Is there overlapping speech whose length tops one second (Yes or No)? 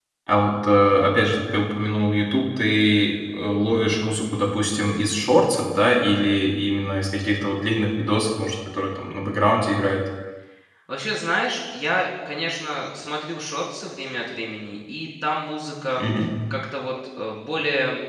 No